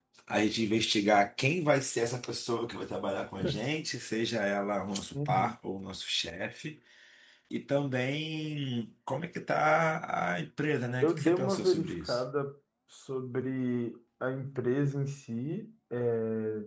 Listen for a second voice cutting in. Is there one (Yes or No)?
Yes